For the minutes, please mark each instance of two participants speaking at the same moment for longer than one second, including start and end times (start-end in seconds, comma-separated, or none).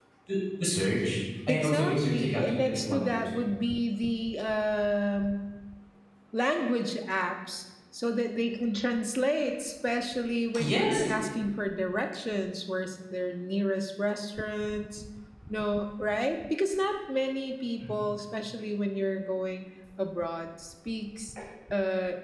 1.5-3.4